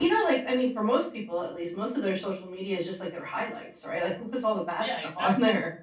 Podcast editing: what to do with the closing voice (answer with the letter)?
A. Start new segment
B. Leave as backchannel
A